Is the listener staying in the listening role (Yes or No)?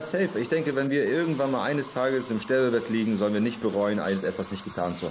No